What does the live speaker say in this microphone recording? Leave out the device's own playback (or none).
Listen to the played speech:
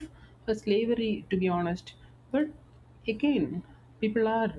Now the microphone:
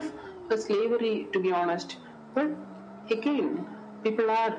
none